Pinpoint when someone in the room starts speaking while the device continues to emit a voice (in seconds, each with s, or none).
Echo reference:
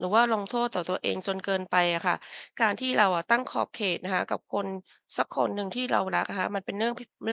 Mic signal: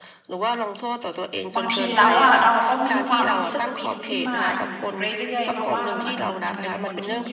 1.6 s